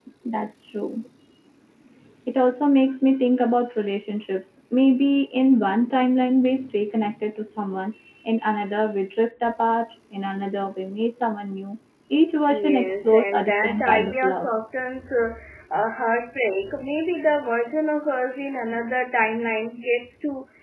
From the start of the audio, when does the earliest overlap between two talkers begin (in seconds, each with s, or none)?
12.5 s